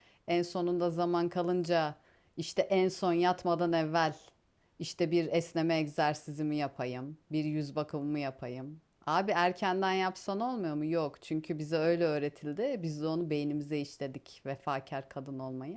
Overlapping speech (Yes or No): No